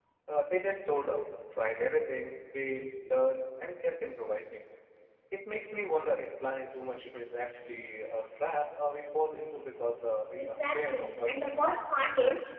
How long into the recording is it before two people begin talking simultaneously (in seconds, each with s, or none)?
10.4 s